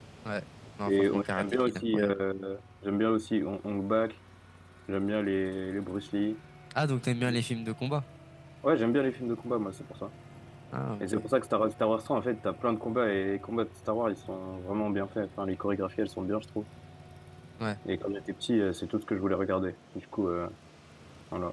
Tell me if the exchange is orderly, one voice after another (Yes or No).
No